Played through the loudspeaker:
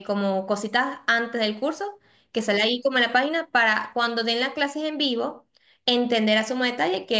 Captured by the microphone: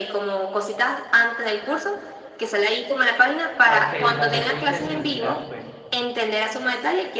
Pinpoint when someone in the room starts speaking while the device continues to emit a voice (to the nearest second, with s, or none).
4 s